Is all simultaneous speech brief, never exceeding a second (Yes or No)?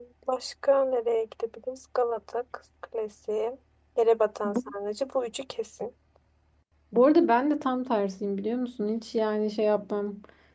Yes